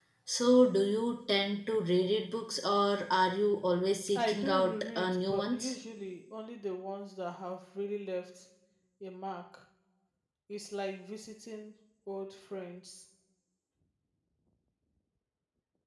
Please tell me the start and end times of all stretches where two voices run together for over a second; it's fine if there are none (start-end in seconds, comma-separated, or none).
4.2-5.8